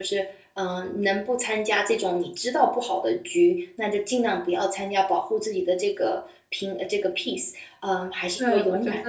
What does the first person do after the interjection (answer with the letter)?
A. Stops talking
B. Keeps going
A